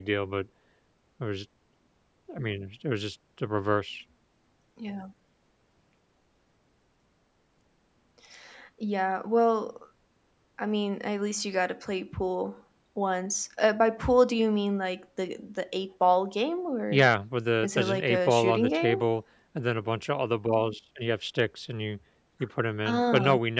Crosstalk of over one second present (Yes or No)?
Yes